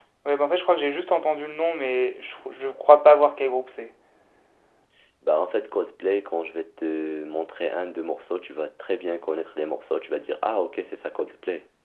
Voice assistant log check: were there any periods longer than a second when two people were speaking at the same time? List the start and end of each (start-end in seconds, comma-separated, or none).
none